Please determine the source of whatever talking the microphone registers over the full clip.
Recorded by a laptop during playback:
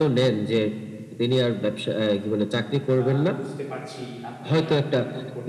both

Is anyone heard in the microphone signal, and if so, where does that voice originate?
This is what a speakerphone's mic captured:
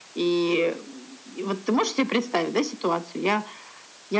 echo only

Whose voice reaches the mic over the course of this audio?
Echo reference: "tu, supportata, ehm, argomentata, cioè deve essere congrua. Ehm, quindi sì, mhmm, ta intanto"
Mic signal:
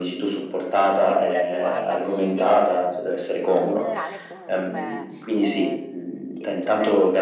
both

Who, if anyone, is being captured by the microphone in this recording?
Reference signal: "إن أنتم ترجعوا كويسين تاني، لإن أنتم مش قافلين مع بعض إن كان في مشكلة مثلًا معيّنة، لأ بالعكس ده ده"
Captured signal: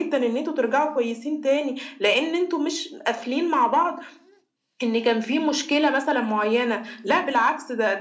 echo only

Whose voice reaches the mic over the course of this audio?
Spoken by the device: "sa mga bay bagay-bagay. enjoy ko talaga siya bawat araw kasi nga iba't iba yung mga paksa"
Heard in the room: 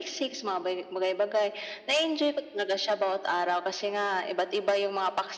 echo only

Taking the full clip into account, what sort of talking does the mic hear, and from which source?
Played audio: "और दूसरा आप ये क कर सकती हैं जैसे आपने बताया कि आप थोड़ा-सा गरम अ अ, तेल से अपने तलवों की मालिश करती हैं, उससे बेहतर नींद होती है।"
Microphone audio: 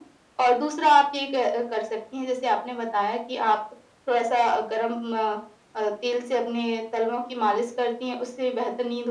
echo only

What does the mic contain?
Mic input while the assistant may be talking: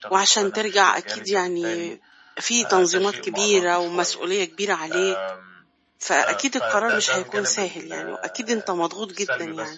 both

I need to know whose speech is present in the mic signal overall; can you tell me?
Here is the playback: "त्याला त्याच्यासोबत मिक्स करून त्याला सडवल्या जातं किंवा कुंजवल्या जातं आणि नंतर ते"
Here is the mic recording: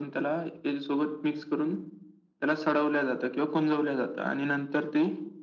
echo only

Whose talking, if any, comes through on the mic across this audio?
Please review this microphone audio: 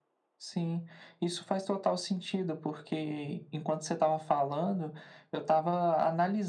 echo only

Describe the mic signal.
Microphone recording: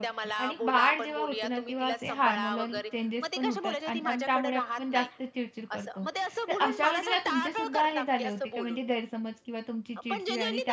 both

